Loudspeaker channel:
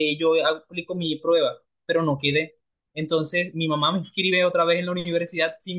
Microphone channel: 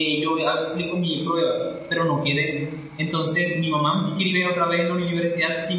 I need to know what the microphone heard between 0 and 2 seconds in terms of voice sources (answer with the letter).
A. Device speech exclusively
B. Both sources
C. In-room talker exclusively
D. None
A